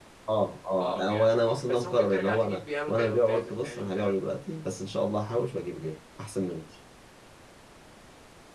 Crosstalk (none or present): present